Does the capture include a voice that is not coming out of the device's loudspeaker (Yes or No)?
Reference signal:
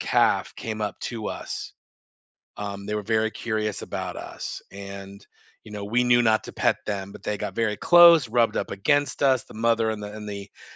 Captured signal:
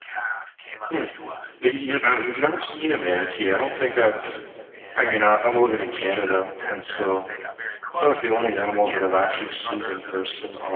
Yes